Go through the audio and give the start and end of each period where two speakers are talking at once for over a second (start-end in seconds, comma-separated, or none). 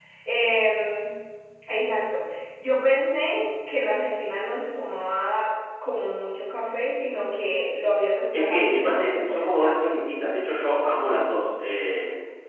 8.3-9.9